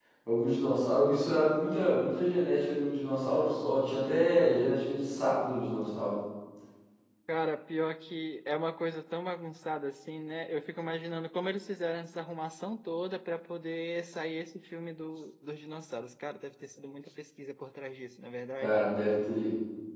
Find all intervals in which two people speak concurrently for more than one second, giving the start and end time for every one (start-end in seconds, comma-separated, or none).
none